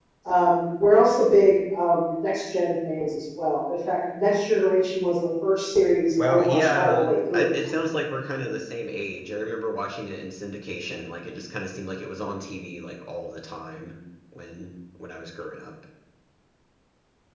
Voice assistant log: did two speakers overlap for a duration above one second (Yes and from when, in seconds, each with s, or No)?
Yes, from 6.2 s